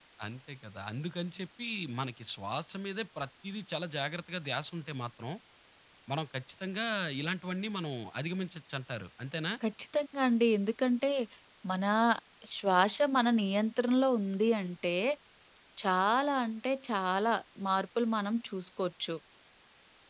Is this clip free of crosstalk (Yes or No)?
Yes